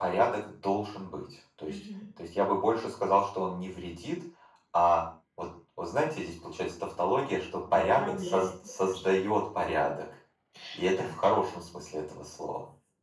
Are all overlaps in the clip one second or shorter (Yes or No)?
No